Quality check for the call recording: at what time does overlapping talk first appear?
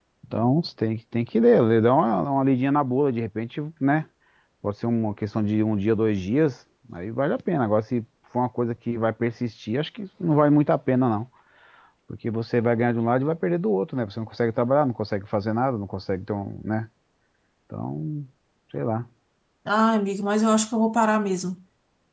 none

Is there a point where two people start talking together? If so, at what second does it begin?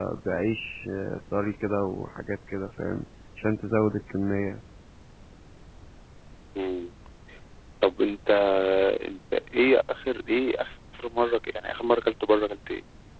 none

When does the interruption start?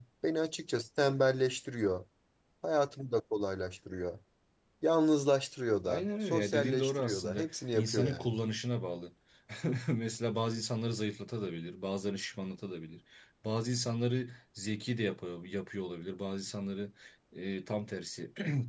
5.8 s

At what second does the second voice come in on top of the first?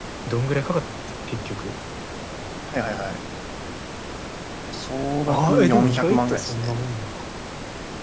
5.3 s

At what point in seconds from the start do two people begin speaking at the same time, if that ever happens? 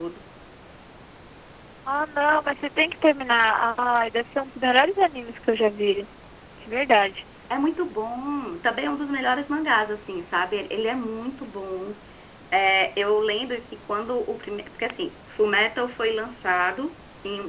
none

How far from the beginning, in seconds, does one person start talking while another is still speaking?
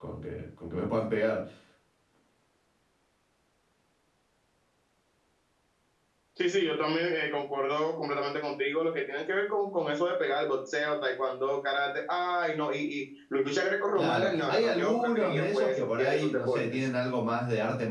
13.9 s

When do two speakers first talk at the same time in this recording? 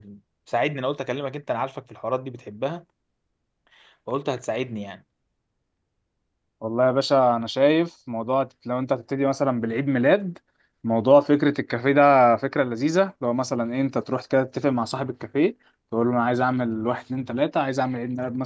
none

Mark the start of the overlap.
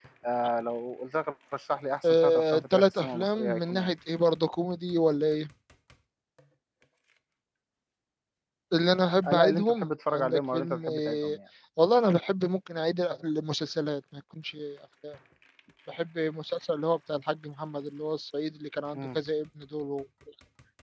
2.0 s

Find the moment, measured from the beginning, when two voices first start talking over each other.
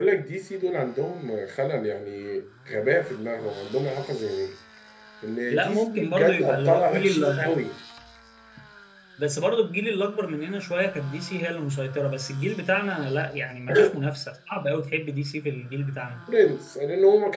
5.5 s

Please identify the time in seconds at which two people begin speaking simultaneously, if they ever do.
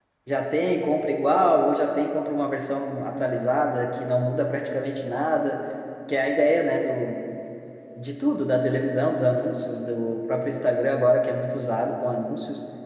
none

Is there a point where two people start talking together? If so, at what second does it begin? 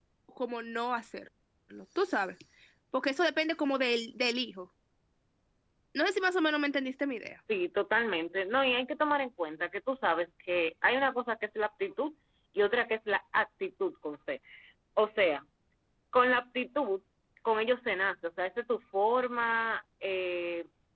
none

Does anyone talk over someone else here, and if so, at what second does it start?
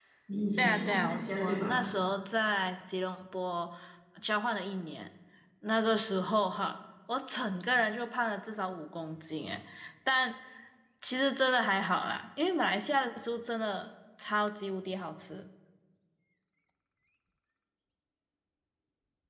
0.6 s

